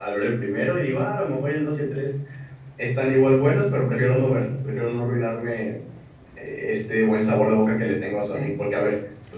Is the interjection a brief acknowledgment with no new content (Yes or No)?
Yes